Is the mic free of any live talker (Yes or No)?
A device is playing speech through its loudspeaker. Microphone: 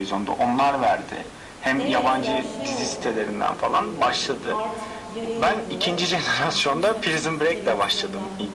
No